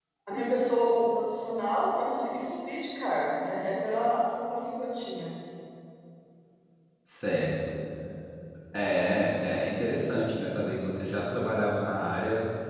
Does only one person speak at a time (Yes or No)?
Yes